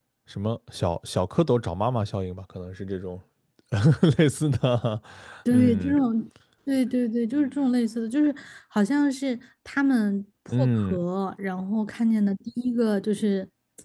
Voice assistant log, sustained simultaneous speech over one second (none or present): none